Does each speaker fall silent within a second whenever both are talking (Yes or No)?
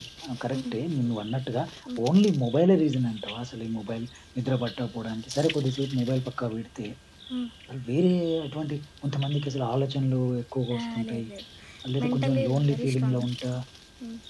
No